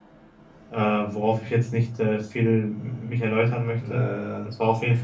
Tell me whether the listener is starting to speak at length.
No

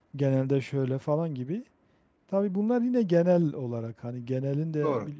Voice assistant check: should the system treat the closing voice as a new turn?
No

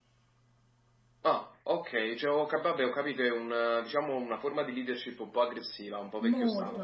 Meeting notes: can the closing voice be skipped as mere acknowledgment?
No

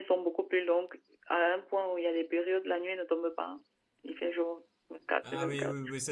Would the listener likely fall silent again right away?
No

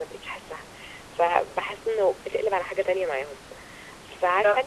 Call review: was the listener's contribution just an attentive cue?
Yes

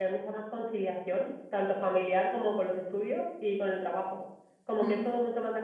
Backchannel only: Yes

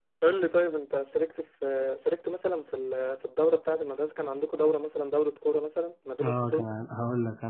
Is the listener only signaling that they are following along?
No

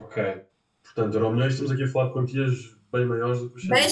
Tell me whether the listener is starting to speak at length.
Yes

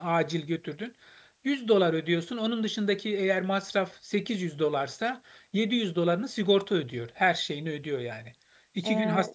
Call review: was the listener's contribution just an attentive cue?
Yes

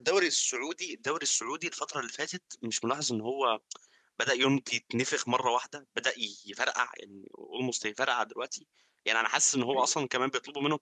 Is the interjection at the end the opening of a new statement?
No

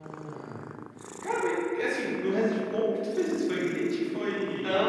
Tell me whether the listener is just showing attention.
No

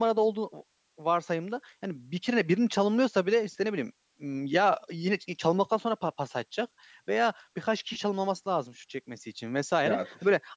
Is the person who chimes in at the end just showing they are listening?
Yes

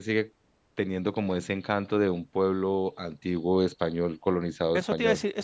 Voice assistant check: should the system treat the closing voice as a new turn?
Yes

